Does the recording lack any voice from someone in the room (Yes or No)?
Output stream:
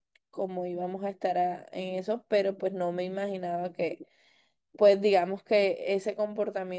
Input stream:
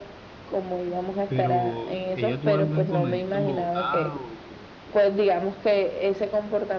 No